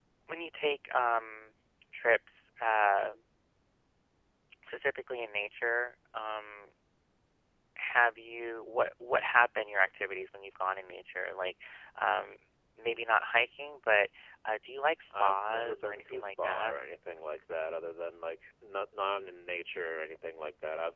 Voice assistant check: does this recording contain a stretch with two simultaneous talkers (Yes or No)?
Yes